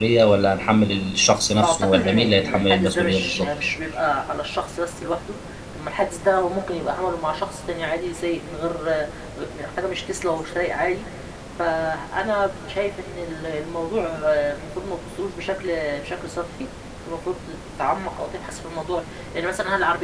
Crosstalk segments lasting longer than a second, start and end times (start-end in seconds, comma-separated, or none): 1.6-3.5